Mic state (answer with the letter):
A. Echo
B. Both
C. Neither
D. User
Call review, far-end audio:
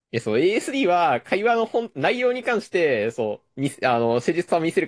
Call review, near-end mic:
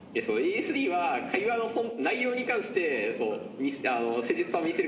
A